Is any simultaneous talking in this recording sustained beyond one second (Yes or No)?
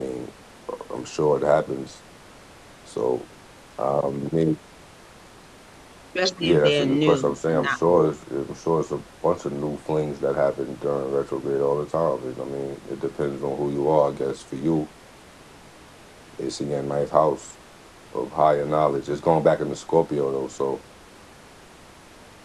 Yes